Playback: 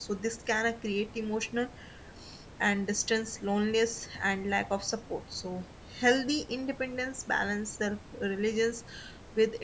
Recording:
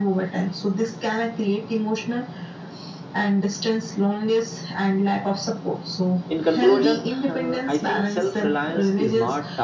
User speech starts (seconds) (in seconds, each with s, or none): 6.3 s